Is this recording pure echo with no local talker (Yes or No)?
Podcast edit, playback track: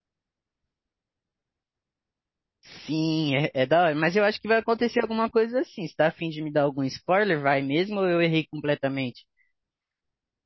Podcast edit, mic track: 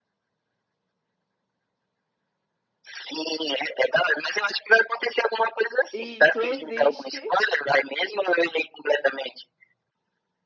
No